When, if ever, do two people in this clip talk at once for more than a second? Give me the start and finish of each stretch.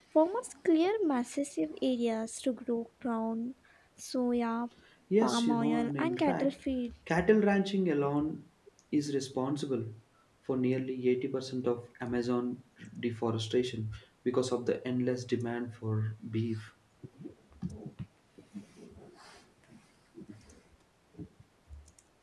5.2-6.5

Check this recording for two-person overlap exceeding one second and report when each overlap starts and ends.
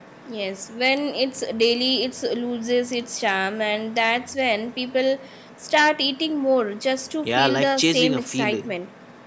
7.2-8.7

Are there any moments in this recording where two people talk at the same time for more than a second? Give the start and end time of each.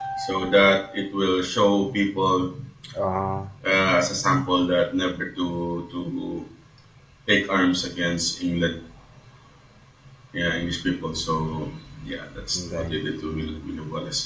12.6-13.8

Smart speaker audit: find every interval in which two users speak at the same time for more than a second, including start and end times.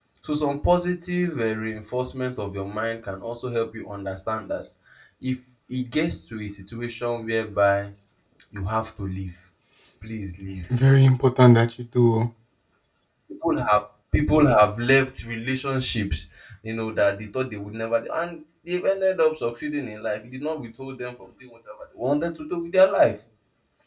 none

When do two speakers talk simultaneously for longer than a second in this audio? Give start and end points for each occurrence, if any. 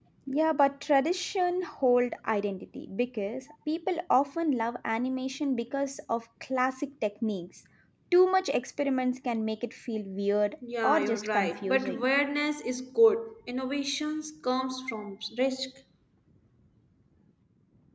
10.8-12.0

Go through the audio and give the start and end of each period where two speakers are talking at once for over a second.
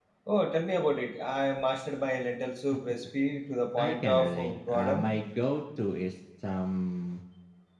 3.8-5.0

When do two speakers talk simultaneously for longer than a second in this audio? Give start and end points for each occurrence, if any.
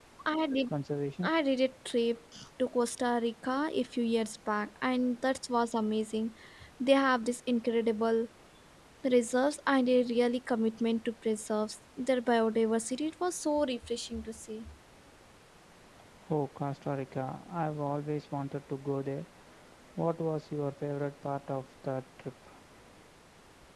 none

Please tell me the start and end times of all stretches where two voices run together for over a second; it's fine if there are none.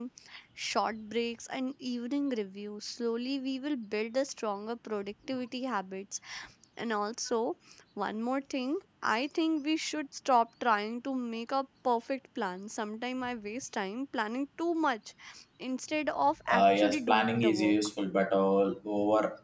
16.5-17.8

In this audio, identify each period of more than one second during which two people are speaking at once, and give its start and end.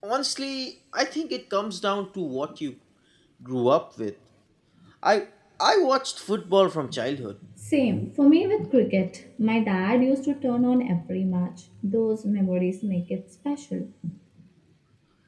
none

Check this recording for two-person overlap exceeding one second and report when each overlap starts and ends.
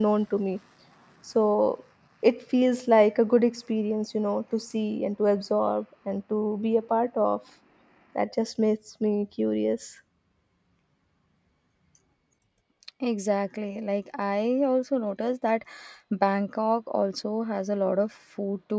none

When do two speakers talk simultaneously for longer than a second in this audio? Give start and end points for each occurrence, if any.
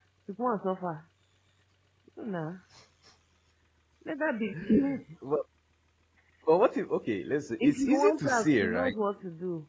7.6-8.9

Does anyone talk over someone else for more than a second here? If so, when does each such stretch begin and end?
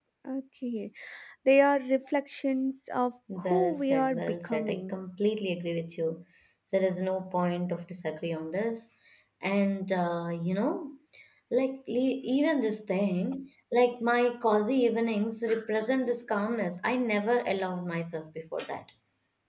3.4-5.0

